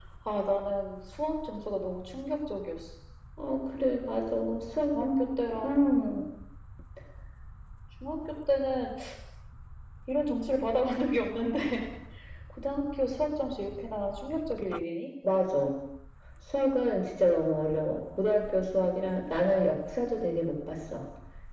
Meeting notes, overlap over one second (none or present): none